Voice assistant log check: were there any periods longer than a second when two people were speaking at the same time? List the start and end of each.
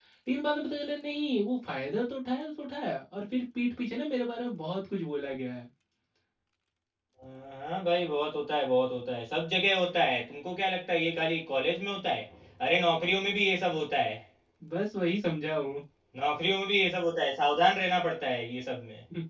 none

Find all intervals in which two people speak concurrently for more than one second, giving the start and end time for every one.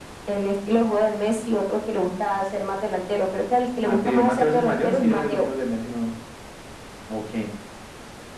3.8-5.5

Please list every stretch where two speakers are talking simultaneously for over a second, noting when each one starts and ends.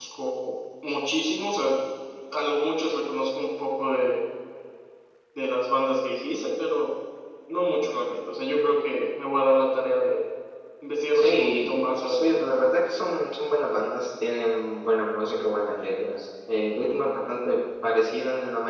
11.2-12.5

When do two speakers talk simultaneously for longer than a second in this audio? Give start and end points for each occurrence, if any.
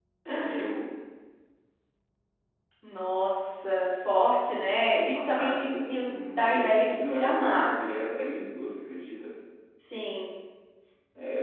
5.1-7.9

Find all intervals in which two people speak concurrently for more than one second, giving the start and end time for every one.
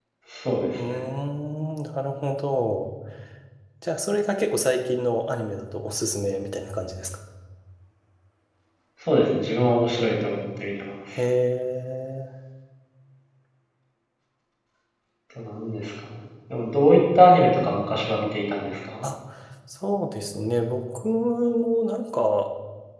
none

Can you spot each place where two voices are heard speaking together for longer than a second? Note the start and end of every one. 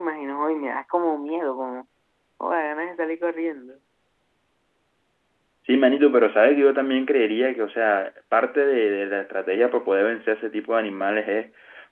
none

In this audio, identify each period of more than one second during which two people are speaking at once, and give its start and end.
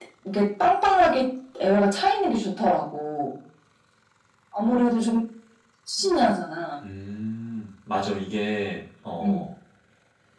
none

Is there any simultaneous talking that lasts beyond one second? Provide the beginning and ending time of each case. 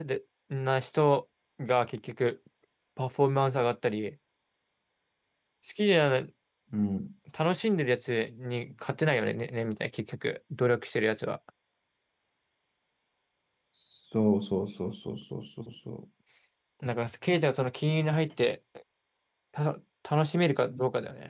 none

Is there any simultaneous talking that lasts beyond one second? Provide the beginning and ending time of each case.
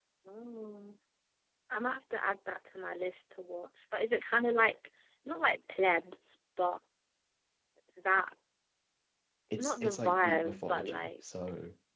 9.6-11.1

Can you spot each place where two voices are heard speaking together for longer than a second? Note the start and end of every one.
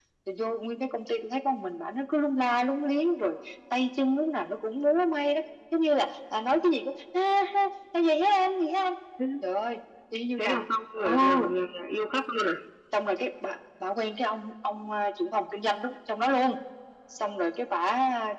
none

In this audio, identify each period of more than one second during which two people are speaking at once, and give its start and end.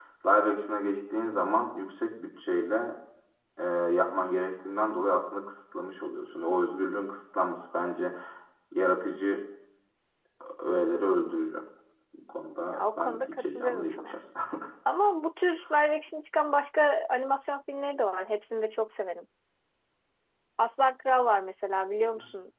12.7-14.2

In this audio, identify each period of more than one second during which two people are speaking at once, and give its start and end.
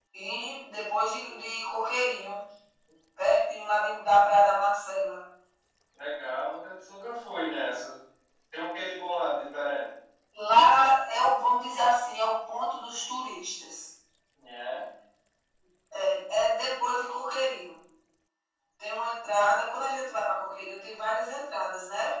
none

